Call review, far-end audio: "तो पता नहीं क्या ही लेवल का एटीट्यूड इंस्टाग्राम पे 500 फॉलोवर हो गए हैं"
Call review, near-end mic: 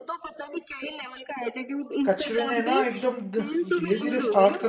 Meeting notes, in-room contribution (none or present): present